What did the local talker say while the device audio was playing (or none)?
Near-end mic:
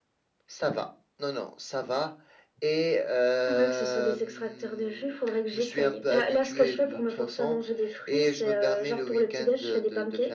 none